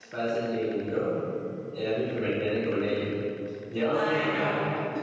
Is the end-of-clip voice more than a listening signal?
No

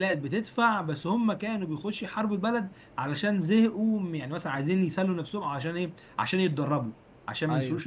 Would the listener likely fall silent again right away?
Yes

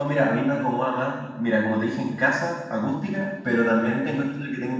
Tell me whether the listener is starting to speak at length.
No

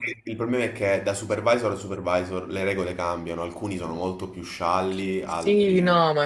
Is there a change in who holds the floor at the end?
Yes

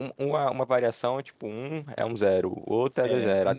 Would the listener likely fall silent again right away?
No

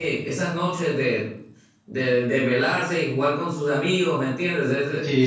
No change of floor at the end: No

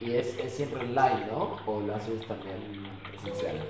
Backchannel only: No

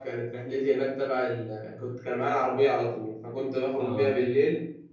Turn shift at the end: No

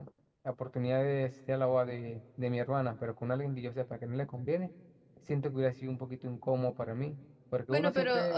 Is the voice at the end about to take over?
Yes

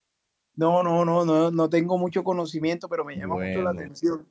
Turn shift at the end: No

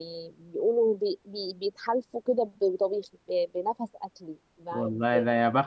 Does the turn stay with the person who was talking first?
No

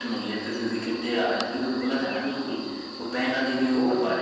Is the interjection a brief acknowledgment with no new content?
No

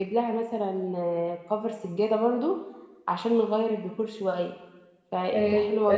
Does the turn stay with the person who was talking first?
No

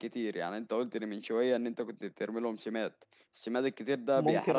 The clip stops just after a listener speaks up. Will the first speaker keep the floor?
No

